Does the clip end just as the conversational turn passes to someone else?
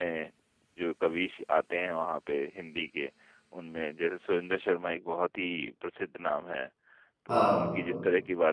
No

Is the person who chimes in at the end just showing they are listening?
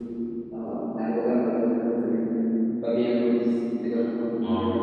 No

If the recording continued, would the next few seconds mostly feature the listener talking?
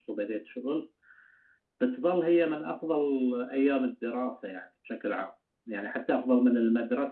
No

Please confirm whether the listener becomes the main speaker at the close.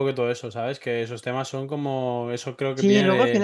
Yes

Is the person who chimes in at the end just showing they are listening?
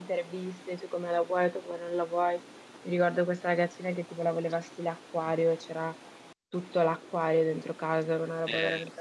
No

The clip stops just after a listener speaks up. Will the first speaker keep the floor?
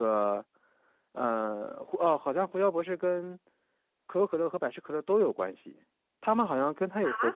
Yes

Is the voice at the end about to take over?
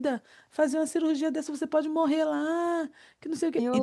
No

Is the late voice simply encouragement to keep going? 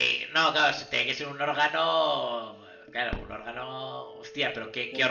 No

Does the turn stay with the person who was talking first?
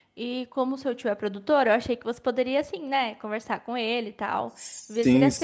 No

